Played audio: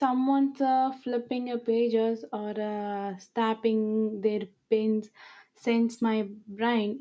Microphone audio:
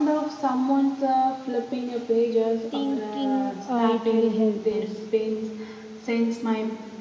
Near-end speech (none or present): present